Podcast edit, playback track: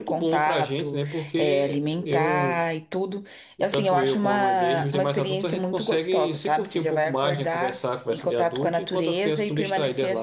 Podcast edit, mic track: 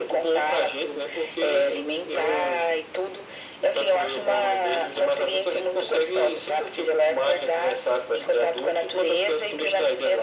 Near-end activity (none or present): none